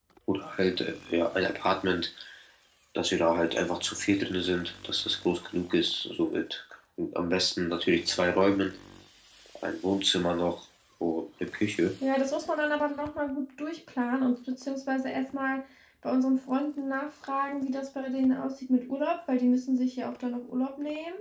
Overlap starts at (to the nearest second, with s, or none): none